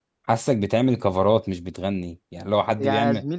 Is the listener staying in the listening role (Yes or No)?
No